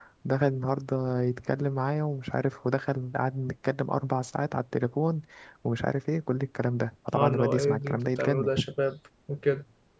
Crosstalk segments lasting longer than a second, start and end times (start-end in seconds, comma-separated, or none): 7.1-8.5